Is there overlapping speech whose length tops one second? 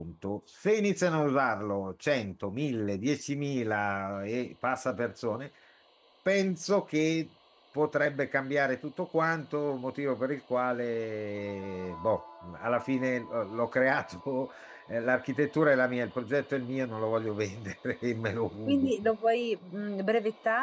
No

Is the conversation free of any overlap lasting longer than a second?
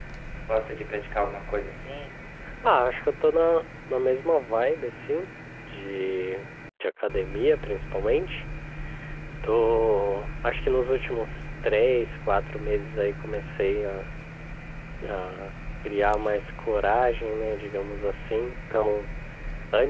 Yes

